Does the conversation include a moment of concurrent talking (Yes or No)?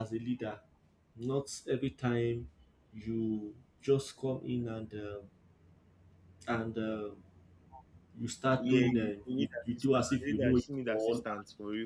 Yes